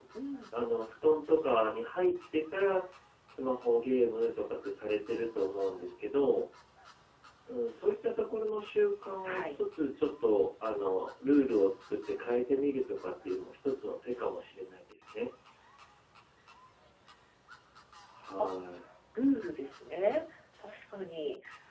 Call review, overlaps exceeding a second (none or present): none